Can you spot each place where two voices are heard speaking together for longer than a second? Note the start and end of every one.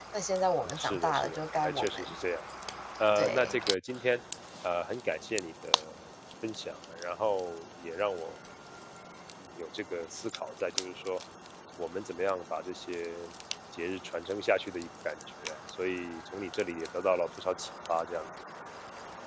0.8-2.1

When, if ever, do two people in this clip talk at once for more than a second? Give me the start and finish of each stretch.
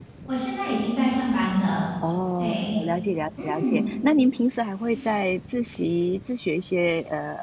none

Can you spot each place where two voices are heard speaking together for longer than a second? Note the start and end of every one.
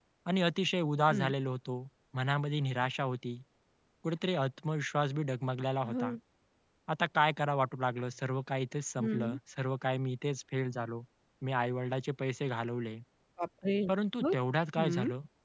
none

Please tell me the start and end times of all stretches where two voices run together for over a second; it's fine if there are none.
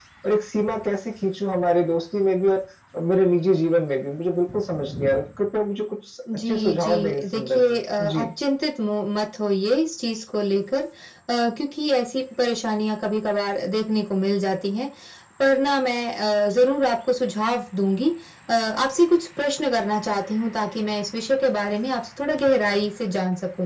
6.5-8.3

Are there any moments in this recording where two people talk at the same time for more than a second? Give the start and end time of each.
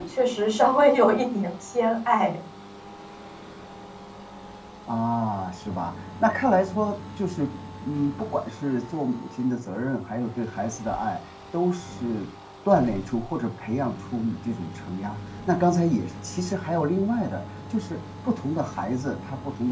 none

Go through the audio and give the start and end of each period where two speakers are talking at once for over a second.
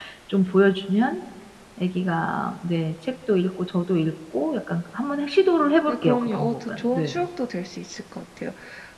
5.9-7.2

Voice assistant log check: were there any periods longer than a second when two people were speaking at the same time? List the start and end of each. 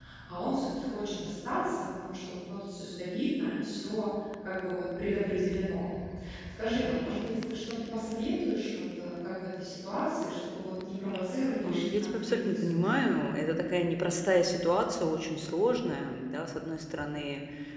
11.6-13.0

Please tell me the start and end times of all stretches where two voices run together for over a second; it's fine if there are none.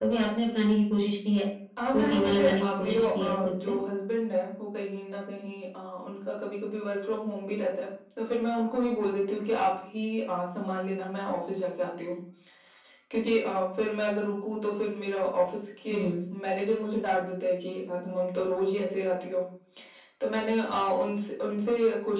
1.9-3.7

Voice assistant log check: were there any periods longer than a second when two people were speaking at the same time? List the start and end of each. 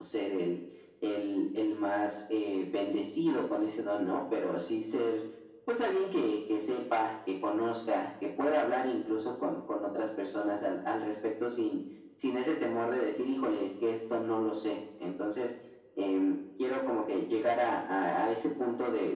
none

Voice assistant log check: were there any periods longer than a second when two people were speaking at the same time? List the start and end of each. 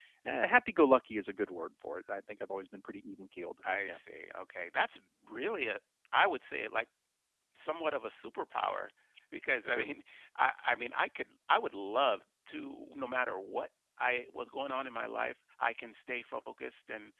none

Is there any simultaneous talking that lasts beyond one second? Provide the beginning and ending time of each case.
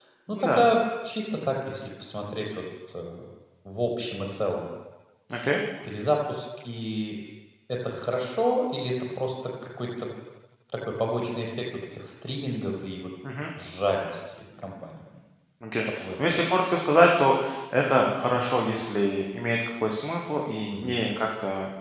none

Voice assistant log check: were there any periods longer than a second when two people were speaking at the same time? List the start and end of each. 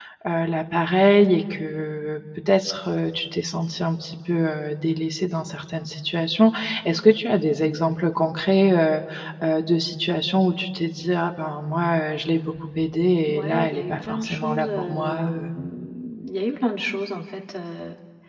13.3-15.5

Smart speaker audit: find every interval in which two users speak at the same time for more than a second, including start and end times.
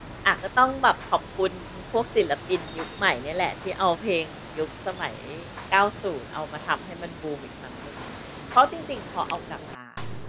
none

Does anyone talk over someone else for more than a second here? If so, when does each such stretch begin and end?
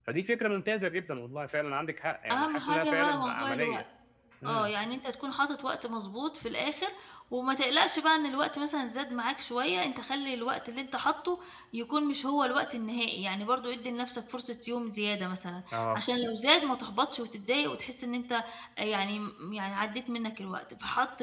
2.3-3.8

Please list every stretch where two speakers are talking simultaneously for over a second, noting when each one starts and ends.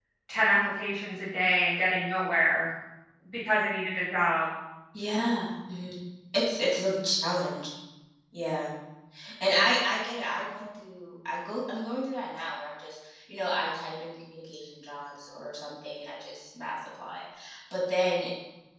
none

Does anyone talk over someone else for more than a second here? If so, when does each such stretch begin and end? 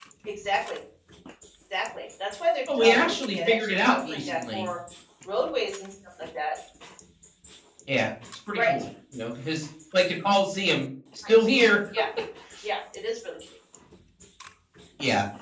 2.8-4.7

